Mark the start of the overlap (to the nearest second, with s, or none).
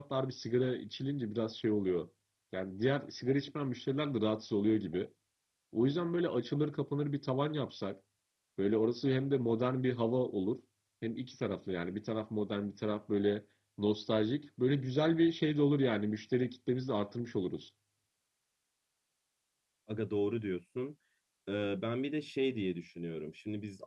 none